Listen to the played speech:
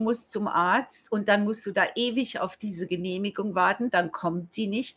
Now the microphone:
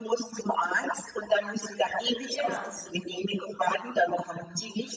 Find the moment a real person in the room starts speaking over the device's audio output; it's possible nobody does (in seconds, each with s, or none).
2.4 s